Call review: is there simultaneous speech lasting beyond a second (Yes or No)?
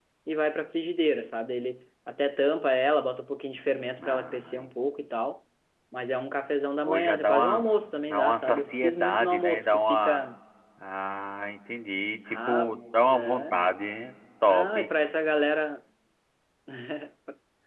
Yes